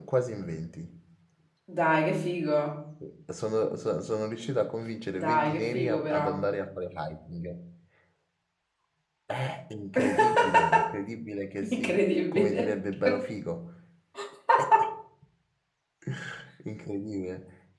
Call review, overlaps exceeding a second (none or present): present